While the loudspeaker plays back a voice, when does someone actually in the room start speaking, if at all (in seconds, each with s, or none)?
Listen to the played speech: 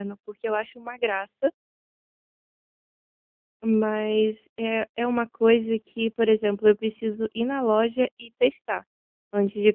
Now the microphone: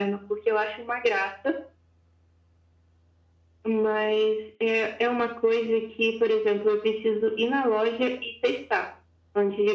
none